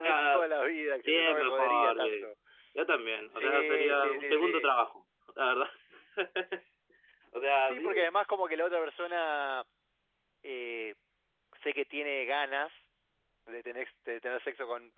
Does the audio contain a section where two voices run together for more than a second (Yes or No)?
Yes